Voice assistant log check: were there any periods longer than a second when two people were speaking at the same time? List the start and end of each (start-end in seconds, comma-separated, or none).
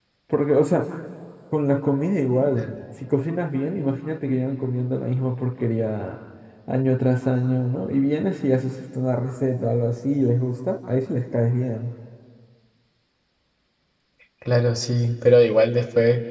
none